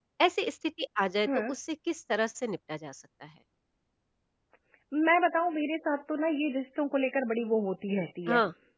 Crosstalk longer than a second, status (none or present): none